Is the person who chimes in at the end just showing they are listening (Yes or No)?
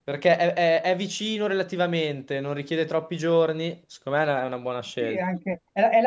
No